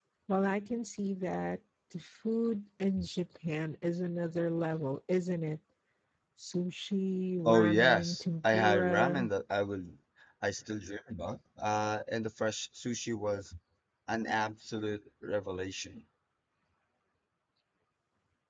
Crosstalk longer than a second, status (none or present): present